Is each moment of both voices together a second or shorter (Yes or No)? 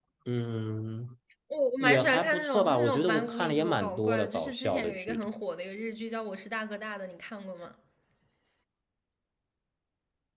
No